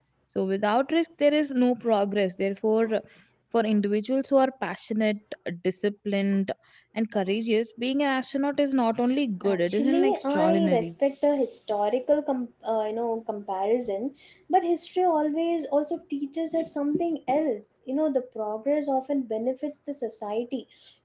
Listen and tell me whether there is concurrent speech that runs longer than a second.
Yes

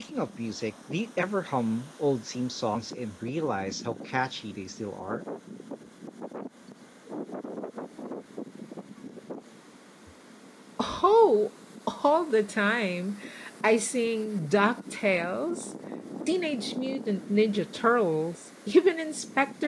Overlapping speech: No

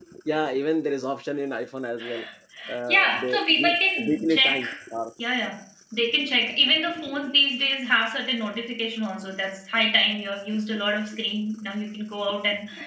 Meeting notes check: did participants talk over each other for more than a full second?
Yes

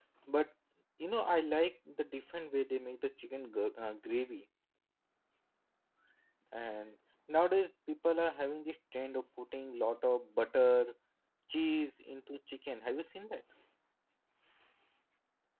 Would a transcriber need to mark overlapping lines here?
No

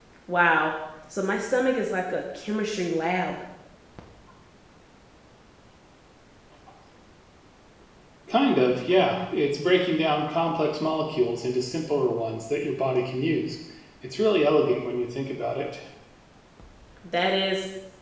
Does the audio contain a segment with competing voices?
No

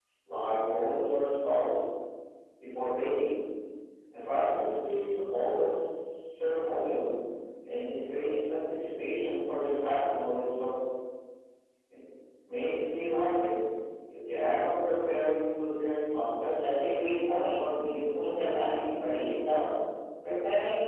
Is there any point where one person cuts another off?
Yes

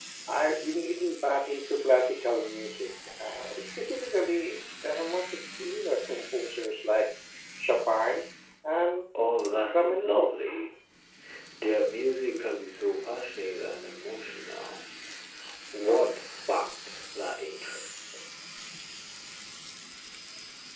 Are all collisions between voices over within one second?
Yes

